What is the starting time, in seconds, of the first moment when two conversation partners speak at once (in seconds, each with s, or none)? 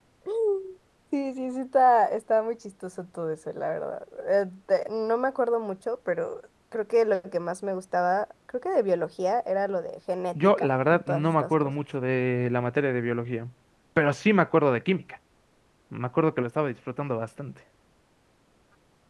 10.3 s